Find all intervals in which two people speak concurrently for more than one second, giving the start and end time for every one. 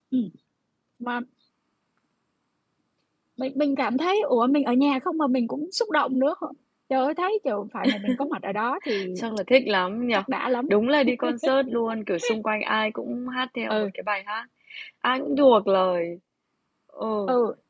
none

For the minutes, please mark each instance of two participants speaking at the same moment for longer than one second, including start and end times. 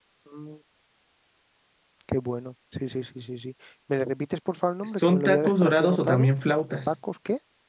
5.0-6.3

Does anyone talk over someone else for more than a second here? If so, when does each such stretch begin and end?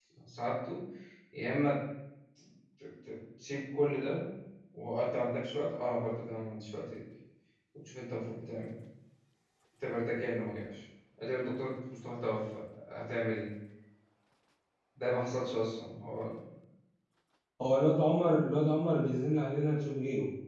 none

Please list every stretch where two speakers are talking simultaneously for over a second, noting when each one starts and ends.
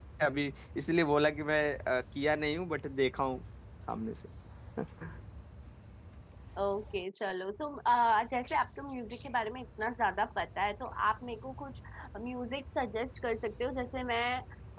none

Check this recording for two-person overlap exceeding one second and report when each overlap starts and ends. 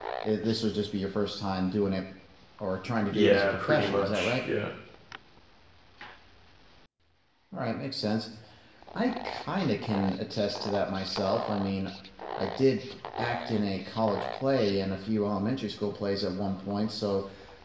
3.1-4.4

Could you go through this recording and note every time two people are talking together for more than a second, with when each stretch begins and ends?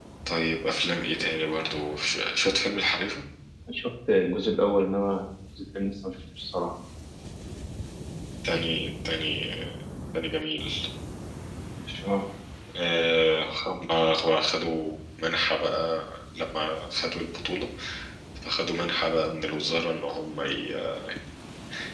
none

